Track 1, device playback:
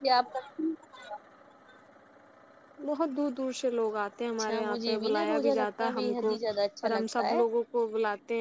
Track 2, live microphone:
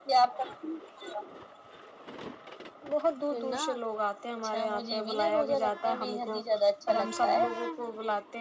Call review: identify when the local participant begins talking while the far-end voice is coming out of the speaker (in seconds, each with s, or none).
3.3 s